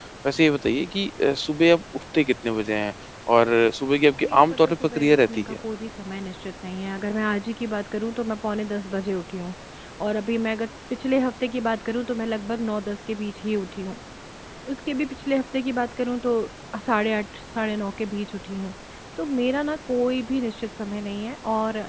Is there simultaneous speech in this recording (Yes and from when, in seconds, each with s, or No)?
Yes, from 4.2 s